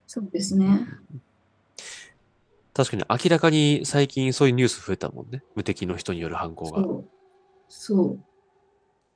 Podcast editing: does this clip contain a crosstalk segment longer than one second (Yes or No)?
No